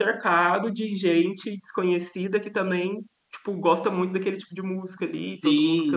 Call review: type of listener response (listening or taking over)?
taking over